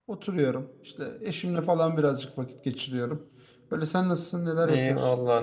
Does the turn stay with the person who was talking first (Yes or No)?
No